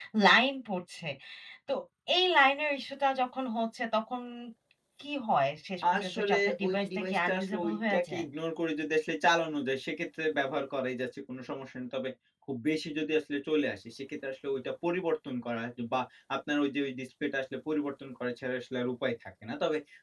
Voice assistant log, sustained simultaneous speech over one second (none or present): present